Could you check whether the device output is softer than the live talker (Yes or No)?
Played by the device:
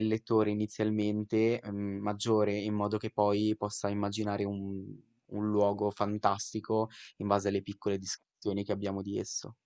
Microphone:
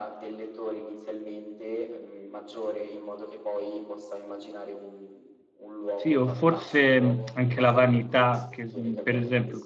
Yes